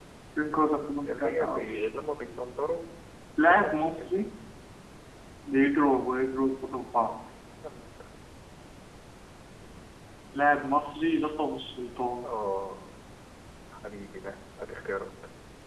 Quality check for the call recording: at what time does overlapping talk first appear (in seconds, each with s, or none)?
0.6 s